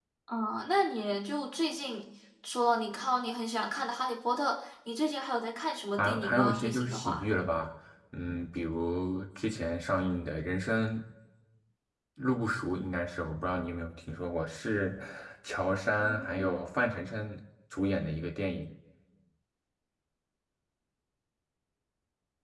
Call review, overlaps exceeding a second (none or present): present